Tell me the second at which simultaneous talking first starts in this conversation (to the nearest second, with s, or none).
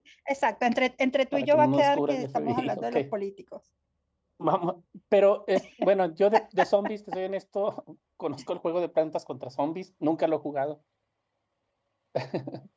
1 s